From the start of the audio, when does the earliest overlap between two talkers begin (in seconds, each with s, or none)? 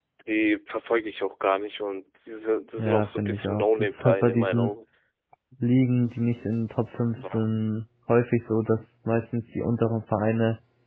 2.8 s